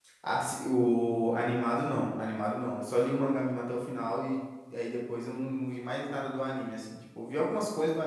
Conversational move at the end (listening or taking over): listening